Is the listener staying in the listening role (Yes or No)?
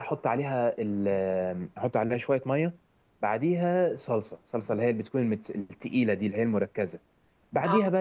Yes